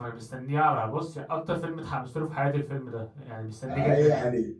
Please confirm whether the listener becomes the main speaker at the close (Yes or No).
Yes